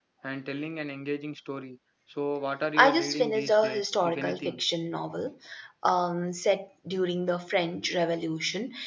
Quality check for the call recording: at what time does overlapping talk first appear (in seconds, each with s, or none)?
2.8 s